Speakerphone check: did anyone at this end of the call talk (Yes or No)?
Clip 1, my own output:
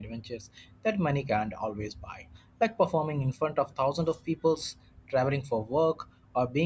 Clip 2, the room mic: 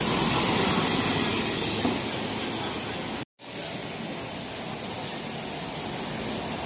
No